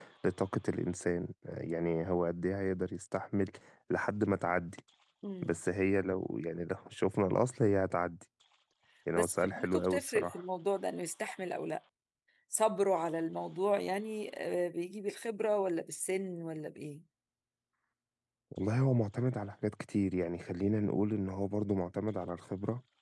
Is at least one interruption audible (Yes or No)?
Yes